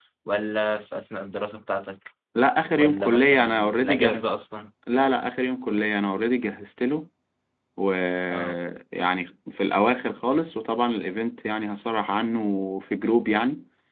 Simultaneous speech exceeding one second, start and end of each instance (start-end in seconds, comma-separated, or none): 2.7-4.2